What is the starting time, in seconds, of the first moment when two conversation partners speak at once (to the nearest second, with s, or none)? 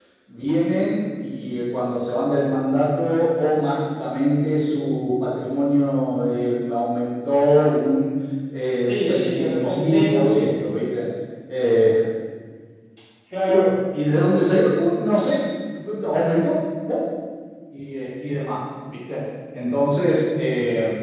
9 s